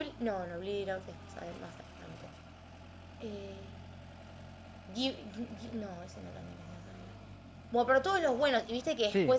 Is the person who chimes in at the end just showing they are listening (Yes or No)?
Yes